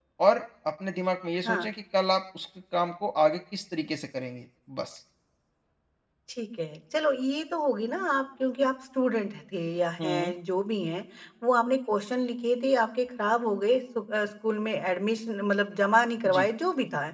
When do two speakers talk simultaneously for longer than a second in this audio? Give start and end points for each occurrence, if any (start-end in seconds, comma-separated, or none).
none